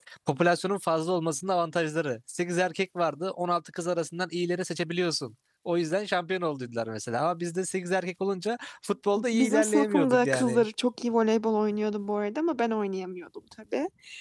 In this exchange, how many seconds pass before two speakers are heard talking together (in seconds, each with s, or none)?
9.2 s